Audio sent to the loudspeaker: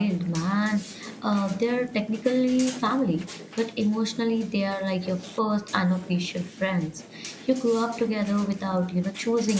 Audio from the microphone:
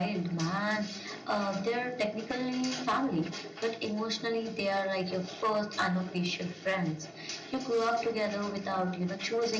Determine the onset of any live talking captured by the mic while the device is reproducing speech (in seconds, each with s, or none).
none